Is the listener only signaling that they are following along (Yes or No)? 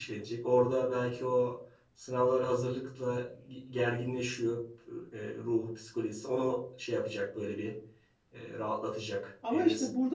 No